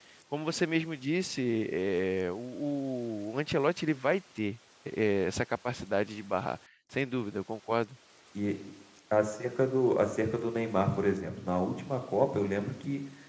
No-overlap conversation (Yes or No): Yes